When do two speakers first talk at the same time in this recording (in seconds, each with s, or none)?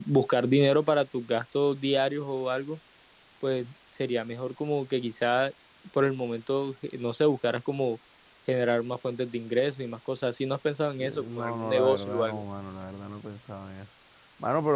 11.0 s